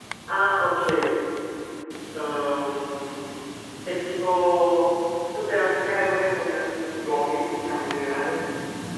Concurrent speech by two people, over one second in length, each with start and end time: none

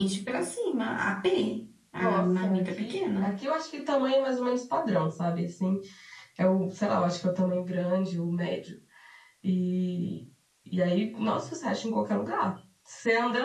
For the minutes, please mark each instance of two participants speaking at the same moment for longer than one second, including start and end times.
2.0-3.4

